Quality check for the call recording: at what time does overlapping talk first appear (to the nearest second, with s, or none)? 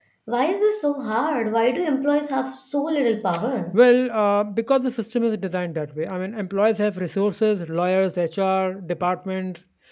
none